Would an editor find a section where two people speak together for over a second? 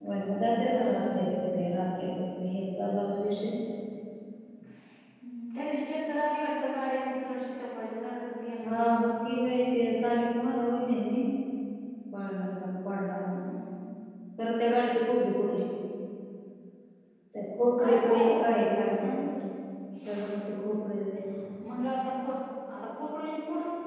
Yes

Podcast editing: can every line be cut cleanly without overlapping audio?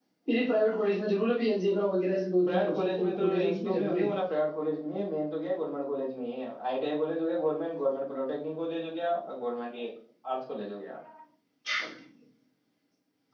No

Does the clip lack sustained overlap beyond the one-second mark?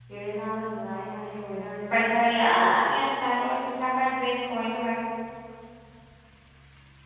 Yes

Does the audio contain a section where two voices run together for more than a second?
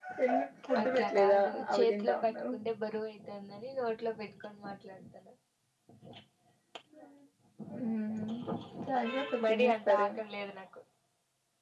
Yes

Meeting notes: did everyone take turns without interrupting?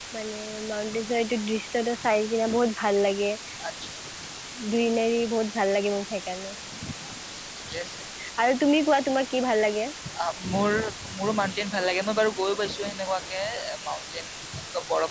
Yes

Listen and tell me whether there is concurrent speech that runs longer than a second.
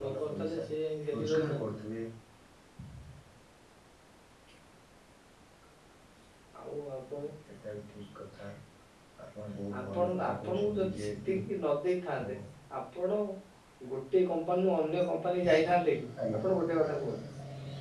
Yes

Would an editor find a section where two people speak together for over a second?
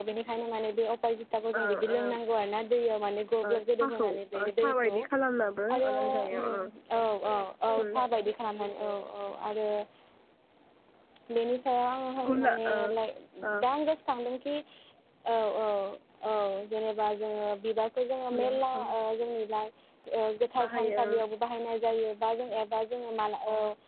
Yes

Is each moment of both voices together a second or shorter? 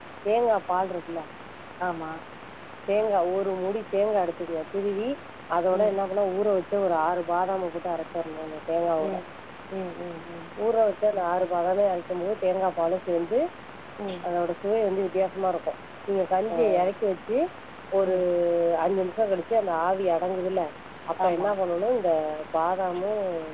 Yes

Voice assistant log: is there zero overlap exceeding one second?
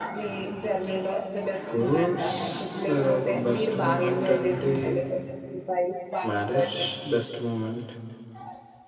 No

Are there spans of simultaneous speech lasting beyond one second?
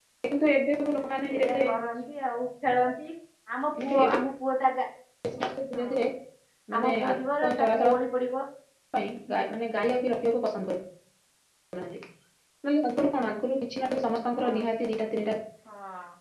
No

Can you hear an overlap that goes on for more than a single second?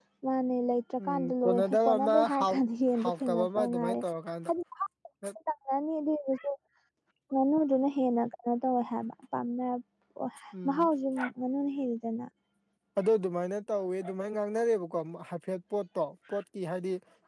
Yes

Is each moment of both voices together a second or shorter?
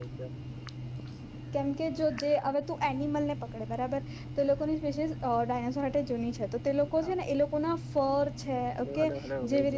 Yes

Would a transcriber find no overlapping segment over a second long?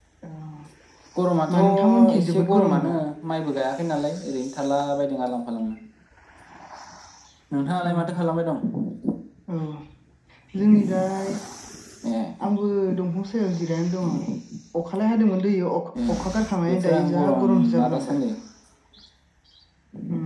No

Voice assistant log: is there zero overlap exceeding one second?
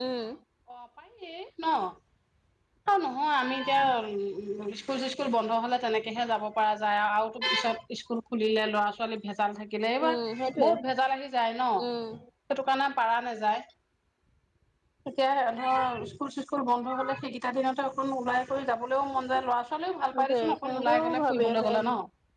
No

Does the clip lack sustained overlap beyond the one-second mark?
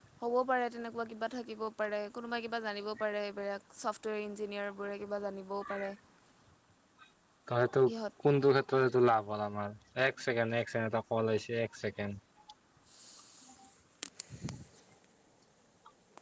Yes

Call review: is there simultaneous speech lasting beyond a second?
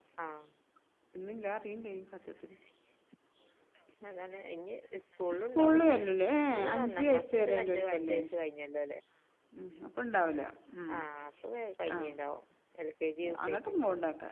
Yes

